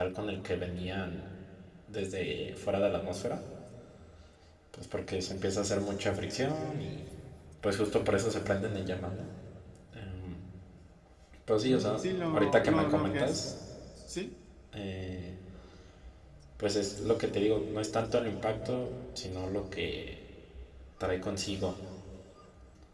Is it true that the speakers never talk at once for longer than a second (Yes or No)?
No